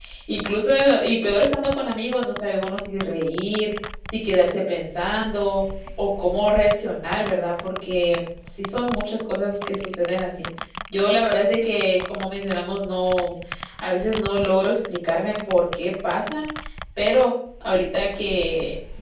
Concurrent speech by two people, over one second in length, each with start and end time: none

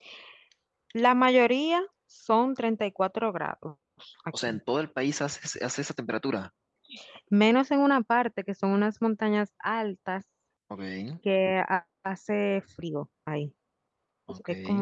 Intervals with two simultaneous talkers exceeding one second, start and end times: none

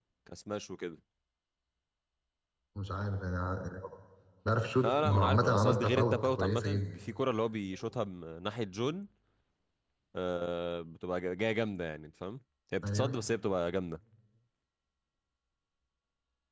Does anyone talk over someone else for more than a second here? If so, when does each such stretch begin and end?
4.8-6.9

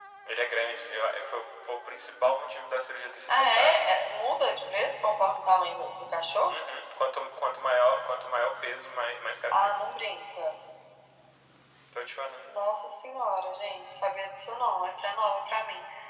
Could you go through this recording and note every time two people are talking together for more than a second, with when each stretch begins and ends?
none

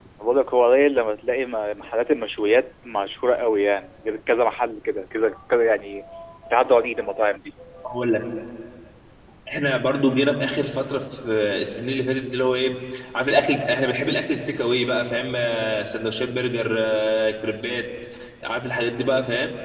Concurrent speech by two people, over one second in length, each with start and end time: none

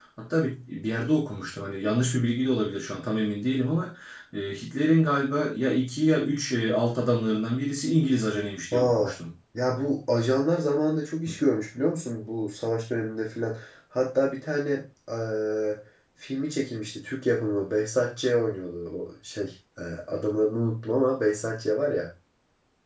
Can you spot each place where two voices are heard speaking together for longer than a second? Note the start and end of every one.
none

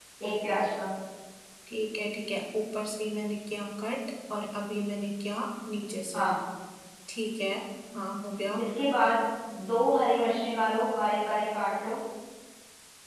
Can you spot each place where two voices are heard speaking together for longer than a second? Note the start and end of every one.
none

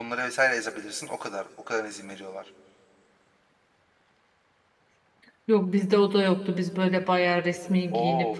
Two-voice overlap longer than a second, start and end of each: none

